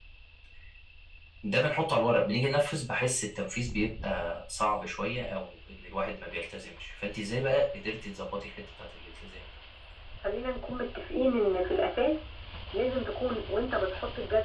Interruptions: none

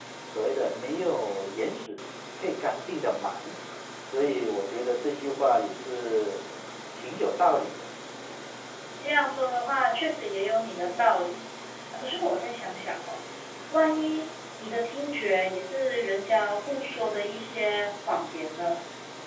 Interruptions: none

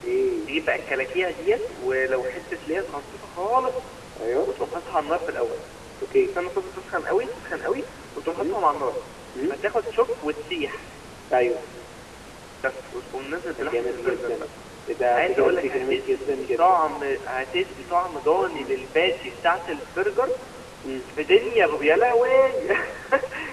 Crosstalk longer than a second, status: present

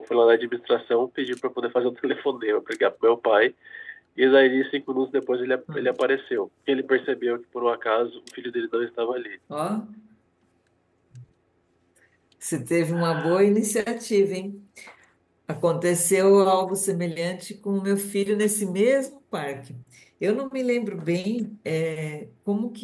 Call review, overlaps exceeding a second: none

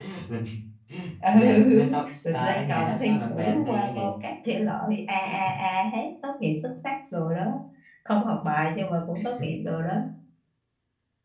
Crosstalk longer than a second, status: present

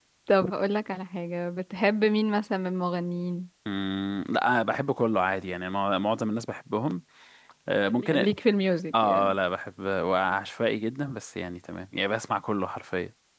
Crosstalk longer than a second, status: none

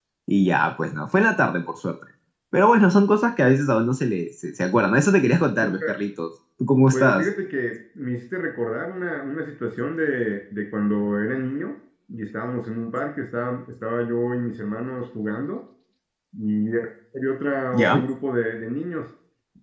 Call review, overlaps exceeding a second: none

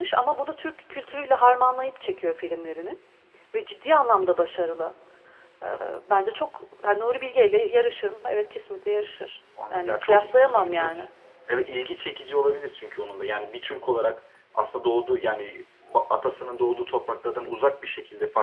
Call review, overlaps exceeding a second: present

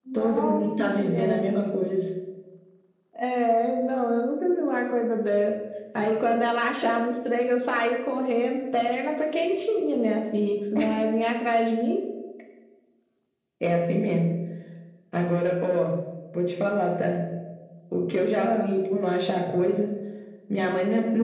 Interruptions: present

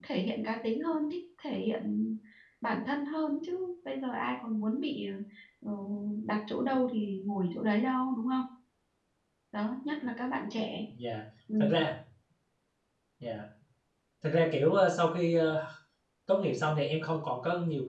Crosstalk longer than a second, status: none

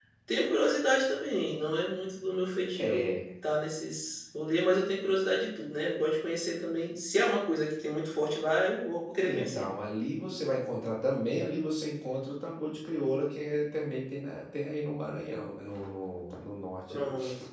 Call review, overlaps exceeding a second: none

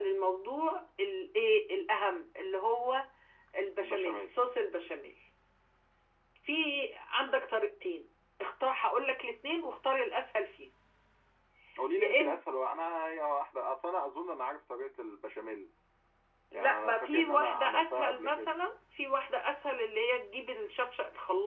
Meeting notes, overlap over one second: present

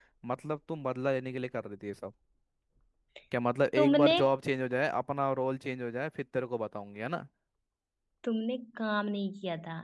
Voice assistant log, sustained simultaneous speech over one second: none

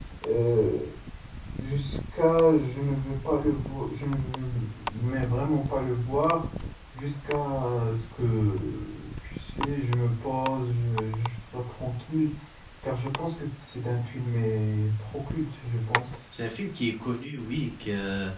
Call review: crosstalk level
none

